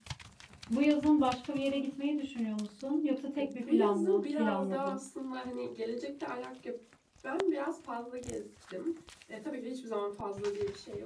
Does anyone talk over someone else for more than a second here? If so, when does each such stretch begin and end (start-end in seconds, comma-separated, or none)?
3.4-5.0